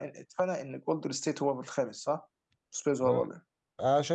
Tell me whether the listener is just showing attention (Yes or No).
No